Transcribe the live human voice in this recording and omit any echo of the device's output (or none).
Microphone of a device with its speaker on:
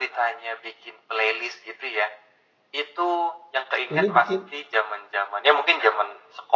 ini bikin,